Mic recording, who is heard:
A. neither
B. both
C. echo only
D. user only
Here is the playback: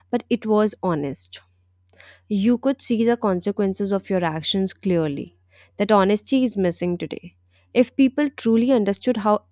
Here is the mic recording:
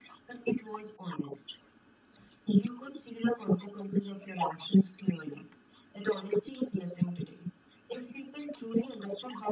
C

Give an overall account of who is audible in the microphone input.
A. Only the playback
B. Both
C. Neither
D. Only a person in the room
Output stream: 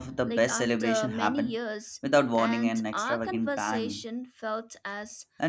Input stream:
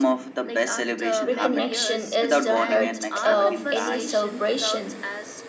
B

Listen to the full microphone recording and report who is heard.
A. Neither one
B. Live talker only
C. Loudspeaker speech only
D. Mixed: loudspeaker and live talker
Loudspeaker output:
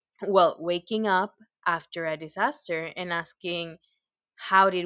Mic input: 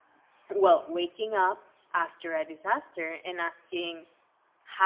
C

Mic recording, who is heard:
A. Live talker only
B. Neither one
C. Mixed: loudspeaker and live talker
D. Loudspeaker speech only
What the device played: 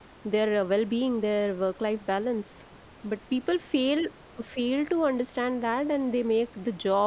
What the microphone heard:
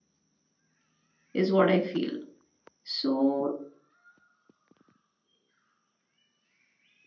A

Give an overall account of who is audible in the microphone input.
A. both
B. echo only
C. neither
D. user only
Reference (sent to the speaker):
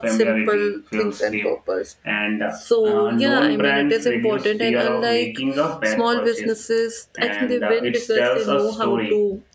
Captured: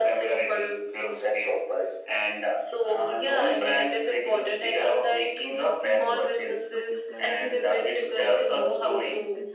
A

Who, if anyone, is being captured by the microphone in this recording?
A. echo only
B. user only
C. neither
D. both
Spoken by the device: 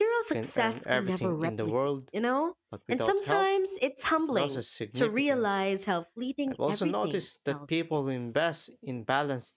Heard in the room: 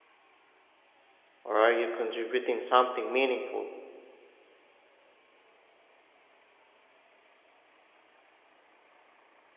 B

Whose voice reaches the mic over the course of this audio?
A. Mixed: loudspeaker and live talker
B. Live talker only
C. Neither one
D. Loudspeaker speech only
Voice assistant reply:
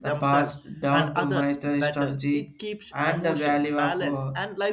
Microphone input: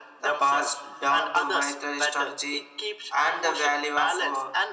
D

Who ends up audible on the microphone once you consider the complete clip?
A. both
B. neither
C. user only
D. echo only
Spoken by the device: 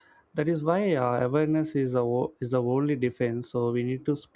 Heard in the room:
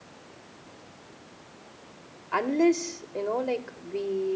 C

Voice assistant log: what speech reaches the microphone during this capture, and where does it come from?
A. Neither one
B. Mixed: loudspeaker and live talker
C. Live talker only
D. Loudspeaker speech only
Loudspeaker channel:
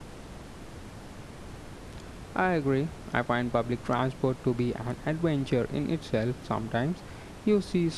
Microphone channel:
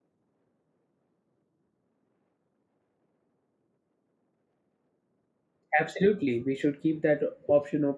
C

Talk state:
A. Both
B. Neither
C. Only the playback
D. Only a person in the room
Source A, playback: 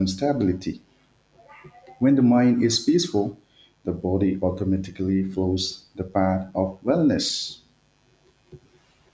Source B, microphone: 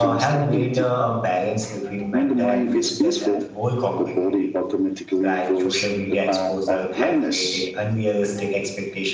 A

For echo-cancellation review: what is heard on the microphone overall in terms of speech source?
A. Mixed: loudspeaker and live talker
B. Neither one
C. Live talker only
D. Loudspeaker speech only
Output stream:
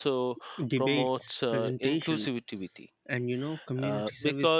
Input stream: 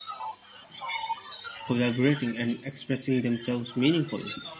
A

